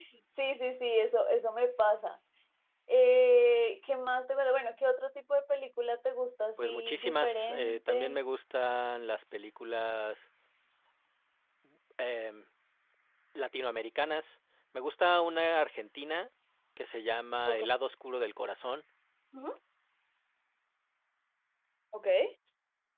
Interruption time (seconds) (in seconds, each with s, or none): 6.6 s